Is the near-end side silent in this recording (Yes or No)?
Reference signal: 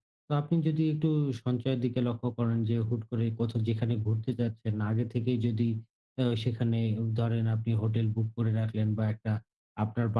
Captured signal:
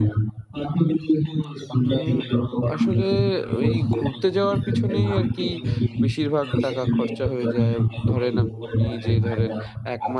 No